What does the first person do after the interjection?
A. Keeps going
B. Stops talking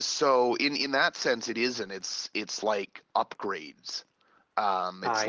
A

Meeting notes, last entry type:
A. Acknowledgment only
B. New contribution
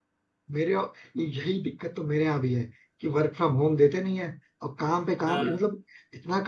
A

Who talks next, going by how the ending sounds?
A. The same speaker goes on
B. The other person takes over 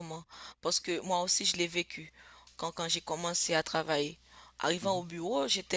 A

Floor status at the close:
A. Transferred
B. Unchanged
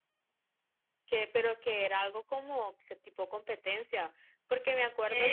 A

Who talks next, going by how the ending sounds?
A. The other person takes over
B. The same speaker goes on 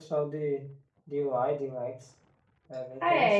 A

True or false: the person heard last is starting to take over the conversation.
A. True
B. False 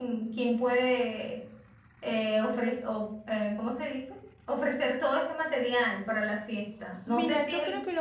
A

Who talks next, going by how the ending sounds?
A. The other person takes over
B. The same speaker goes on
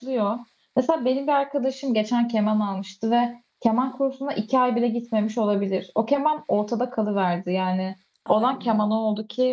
B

